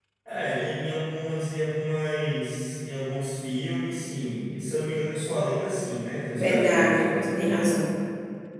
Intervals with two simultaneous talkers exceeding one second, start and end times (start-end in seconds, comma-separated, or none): 6.4-7.8